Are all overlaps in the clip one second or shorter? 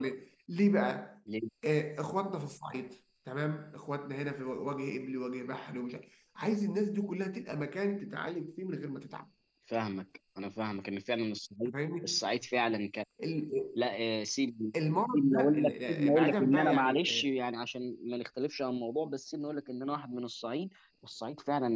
No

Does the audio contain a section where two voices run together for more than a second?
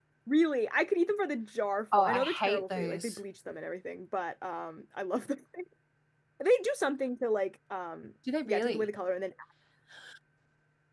Yes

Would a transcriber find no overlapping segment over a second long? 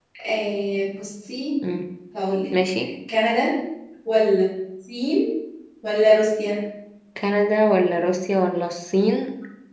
Yes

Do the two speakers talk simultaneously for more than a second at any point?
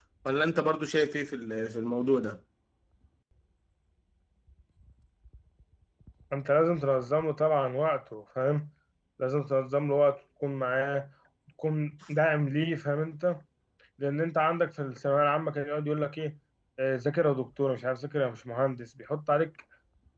No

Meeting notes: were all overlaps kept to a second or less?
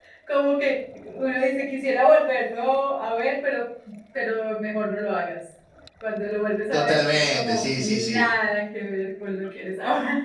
No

